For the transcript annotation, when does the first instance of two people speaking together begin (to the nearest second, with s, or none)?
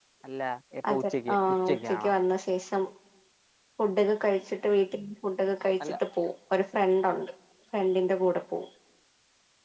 1 s